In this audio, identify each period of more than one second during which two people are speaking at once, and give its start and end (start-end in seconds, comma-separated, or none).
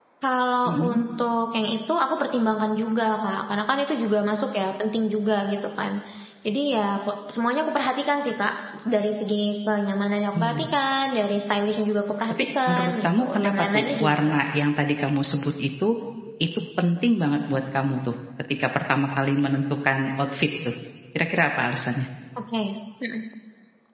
12.3-14.4